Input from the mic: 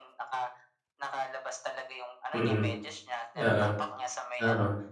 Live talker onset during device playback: 2.3 s

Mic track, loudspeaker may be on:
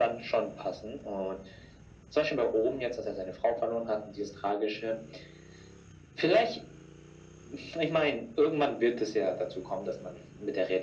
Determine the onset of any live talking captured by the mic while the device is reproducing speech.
none

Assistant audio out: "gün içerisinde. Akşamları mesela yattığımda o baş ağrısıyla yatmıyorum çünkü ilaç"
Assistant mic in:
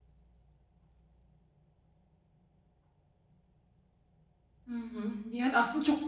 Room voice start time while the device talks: 4.7 s

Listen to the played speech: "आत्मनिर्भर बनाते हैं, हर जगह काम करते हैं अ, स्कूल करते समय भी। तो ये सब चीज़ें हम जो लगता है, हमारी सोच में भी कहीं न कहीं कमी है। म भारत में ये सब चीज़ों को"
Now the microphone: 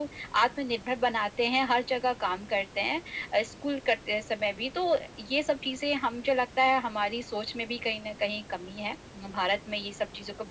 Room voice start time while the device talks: none

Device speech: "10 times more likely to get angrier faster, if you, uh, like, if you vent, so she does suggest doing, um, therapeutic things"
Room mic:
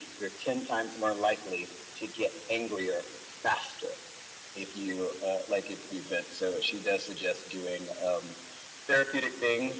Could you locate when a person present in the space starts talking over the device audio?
none

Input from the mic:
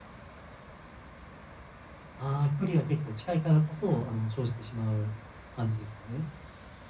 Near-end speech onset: none

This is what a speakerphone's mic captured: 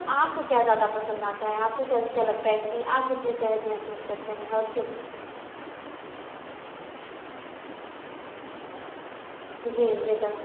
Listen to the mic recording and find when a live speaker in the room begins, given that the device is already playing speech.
none

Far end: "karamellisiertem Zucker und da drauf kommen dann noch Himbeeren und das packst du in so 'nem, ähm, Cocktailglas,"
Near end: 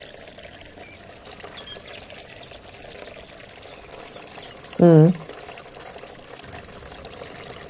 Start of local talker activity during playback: 4.8 s

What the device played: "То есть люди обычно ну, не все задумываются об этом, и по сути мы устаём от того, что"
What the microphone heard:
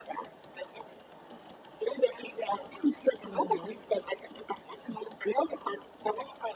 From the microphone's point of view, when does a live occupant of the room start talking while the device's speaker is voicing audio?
3.2 s

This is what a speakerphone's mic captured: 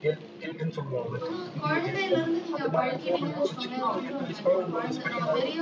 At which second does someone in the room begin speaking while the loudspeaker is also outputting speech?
1.2 s

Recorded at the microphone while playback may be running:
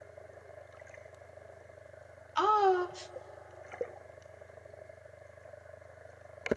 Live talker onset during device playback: 2.3 s

